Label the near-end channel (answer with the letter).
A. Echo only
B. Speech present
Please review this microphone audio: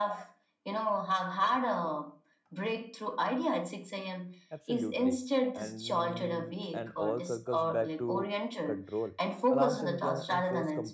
B